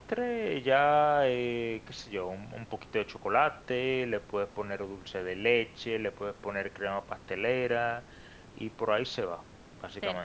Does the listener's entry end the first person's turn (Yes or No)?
Yes